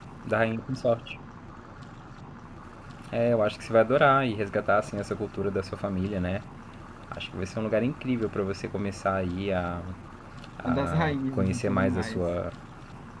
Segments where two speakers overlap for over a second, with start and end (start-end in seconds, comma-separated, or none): 10.7-12.2